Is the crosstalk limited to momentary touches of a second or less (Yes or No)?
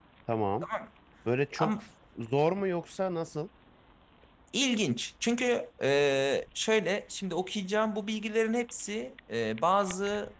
Yes